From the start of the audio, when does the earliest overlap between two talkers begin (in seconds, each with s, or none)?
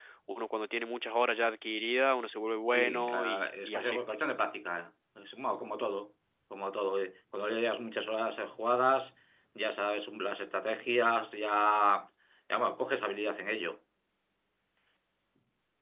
2.7 s